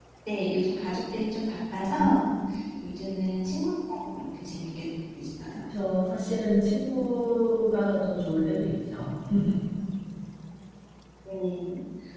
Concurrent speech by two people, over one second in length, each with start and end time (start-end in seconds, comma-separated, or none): none